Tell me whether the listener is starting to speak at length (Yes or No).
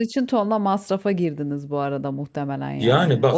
Yes